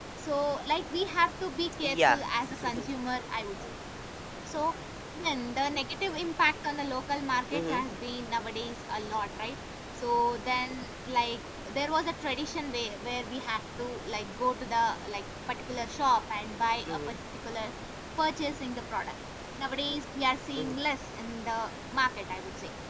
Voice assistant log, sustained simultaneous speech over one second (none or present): none